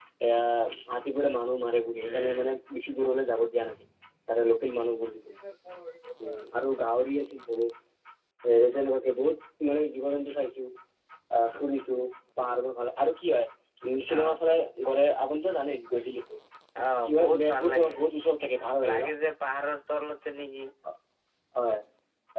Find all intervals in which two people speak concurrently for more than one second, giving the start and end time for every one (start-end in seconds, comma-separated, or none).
17.1-19.1